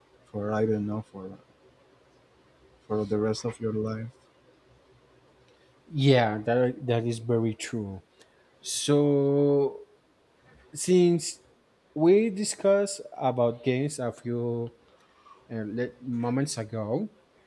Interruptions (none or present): none